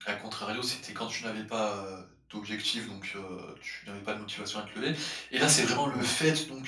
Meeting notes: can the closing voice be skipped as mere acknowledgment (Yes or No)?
Yes